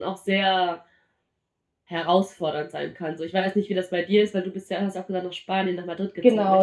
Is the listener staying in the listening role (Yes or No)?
No